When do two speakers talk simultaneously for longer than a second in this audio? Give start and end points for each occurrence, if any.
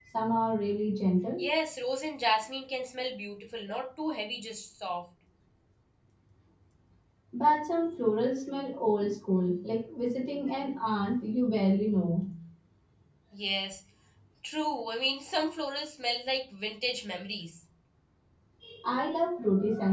none

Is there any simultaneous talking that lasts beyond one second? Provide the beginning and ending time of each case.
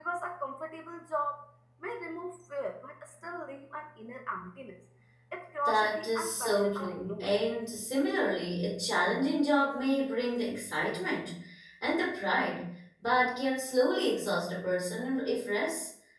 5.7-7.3

